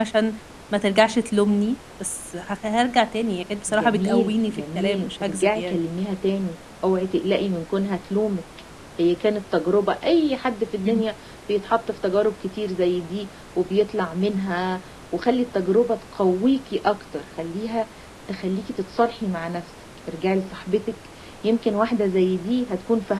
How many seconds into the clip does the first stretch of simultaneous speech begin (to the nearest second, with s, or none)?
4 s